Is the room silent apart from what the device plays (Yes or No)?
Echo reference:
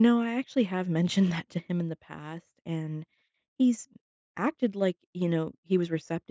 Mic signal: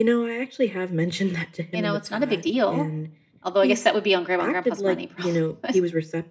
No